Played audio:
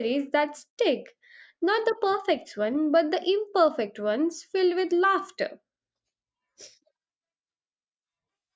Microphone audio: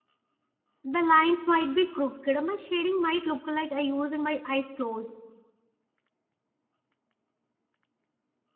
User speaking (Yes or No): Yes